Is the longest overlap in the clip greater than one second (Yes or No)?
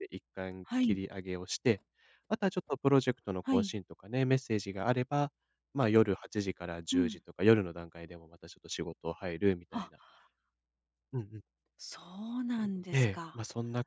No